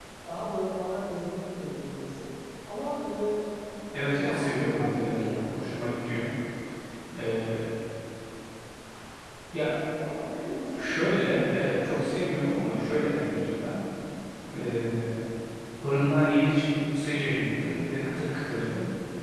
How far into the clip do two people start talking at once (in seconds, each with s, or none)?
4.1 s